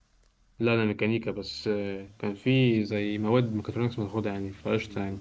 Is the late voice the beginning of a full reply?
Yes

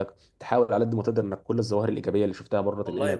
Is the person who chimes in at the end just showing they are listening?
No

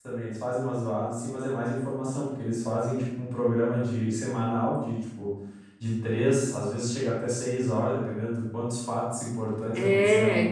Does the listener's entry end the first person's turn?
No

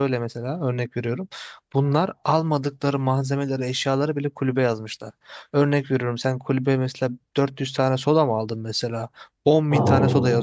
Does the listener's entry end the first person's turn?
No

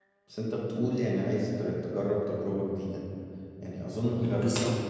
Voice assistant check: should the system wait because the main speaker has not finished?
Yes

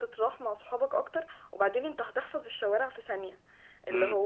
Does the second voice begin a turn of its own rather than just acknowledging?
No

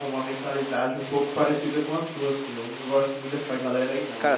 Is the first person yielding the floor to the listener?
Yes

